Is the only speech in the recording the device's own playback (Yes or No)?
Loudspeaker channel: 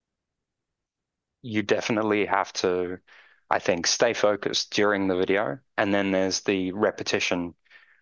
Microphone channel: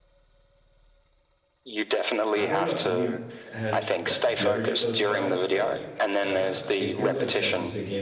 No